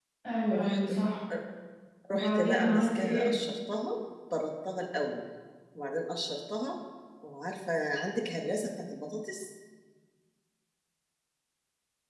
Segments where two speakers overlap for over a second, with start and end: 2.1-3.4

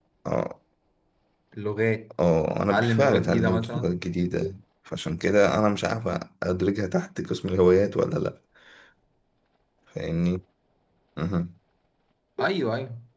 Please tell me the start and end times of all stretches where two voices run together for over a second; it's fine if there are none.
2.7-3.9

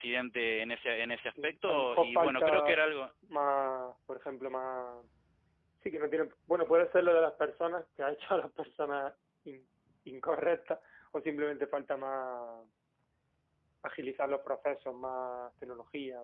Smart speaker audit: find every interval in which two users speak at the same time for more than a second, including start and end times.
1.4-2.8

